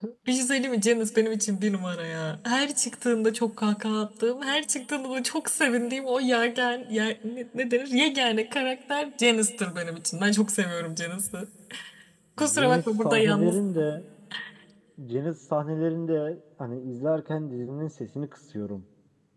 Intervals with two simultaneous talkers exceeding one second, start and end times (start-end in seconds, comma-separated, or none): 12.4-13.6